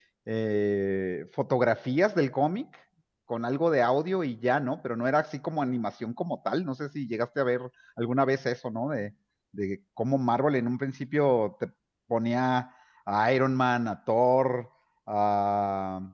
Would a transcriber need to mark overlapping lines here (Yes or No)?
No